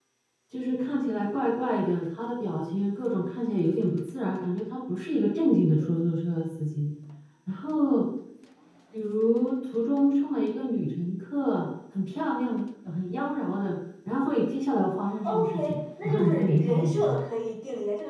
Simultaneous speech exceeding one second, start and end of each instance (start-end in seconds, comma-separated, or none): 15.2-17.2